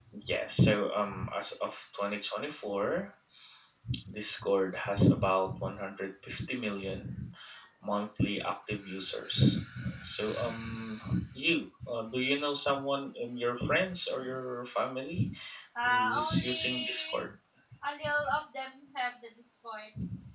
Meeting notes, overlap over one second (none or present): present